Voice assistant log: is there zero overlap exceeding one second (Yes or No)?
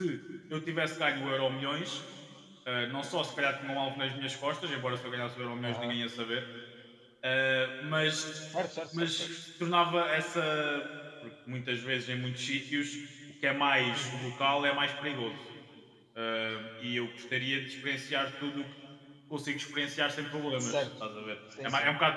Yes